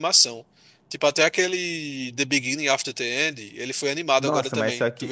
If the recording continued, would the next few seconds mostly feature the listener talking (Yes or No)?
Yes